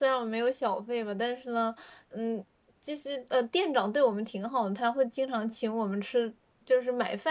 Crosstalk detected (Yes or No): No